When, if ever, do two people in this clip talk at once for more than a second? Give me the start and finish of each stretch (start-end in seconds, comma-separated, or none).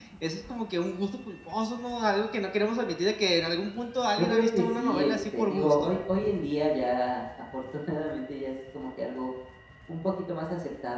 4.2-5.9